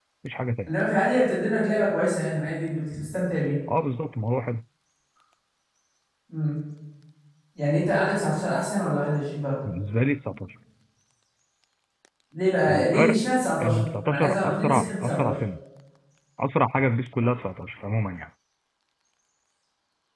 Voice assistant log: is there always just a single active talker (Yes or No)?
No